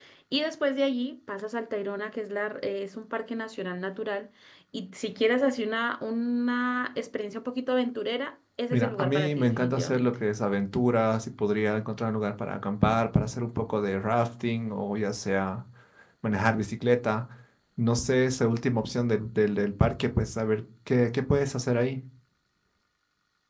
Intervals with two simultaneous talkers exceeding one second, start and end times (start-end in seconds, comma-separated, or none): 8.7-10.2